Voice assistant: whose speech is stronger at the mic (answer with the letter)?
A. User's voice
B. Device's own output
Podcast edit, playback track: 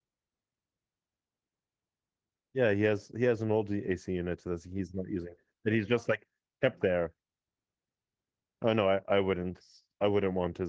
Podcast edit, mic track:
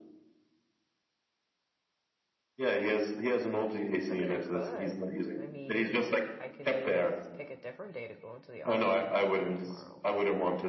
B